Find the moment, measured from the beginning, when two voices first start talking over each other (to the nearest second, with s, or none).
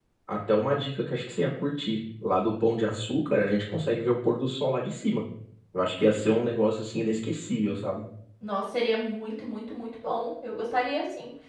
none